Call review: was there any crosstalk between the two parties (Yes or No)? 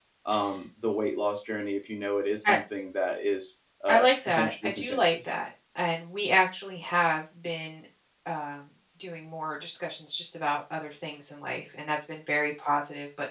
Yes